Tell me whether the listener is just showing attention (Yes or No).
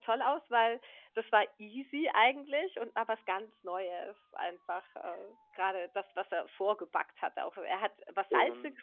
Yes